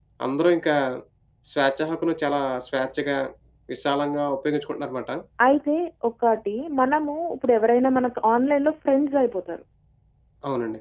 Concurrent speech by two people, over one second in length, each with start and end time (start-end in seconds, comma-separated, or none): none